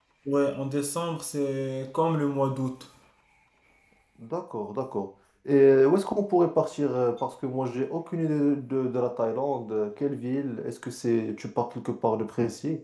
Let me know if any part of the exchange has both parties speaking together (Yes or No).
No